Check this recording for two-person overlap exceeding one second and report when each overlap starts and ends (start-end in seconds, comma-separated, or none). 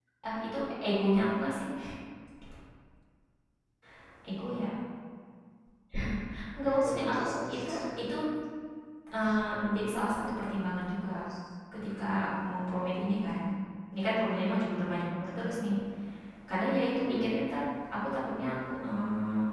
6.6-7.9